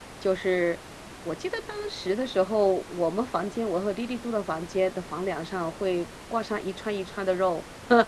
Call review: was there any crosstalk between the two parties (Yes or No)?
No